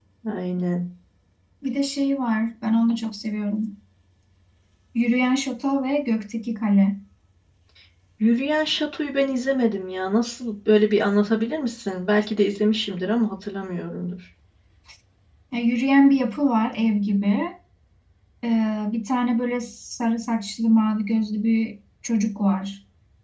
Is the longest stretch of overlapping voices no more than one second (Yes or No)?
Yes